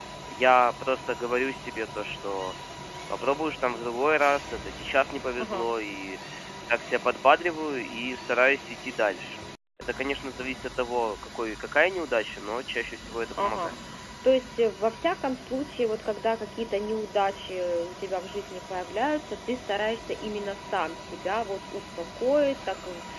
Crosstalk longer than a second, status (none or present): none